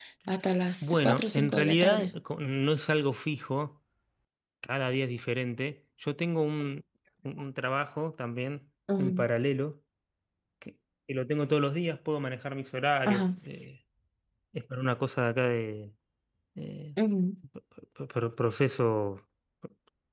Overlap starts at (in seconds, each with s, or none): 0.8 s